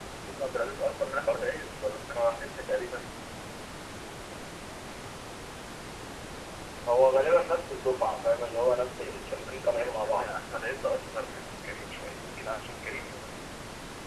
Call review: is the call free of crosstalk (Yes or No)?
No